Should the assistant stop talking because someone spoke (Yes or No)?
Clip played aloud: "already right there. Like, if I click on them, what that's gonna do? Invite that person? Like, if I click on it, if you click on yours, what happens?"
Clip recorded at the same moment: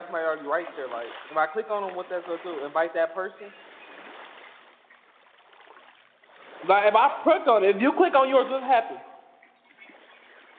No